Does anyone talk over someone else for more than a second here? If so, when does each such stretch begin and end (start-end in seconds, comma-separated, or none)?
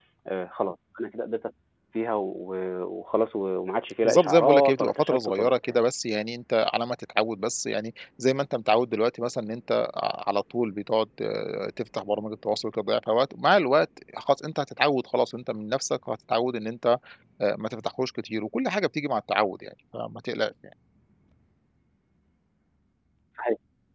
4.0-5.8